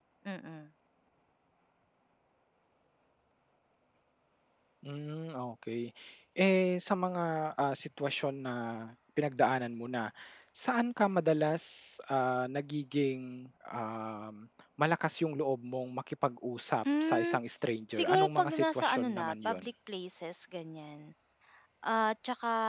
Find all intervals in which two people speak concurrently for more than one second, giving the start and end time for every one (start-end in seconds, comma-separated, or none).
17.9-19.6